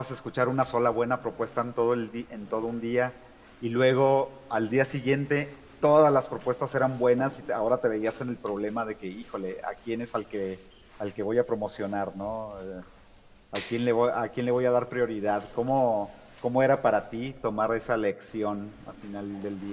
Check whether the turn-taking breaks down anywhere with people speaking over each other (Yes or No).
No